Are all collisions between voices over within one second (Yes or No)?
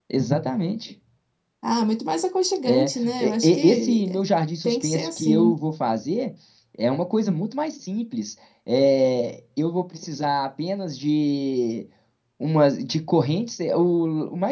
No